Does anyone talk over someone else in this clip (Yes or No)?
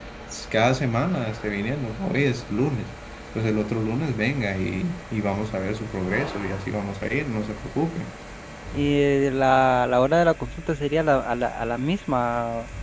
No